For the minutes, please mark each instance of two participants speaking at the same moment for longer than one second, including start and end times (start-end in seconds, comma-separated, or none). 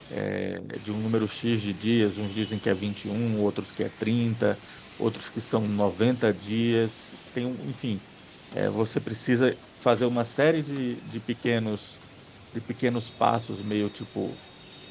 none